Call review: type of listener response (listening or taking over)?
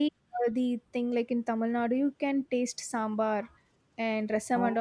listening